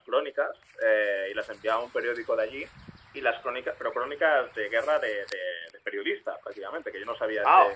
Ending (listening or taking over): taking over